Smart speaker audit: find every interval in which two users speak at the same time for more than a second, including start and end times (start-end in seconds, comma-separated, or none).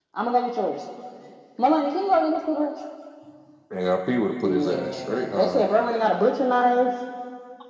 4.4-5.7